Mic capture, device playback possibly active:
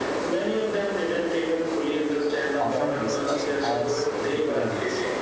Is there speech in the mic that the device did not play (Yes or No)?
Yes